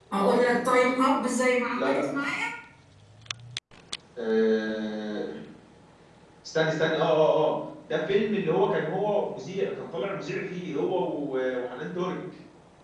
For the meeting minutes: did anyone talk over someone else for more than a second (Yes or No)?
No